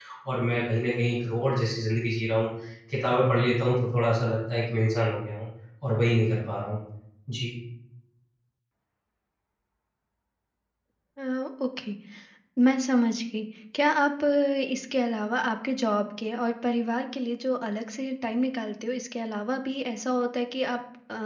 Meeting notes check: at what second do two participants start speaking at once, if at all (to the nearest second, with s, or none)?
none